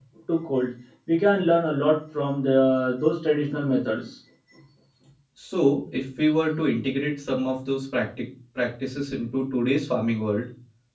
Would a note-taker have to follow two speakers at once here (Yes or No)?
No